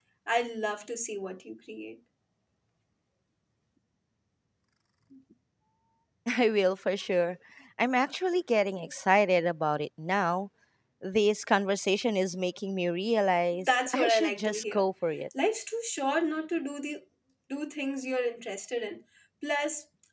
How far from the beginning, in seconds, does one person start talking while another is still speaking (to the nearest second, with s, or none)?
14 s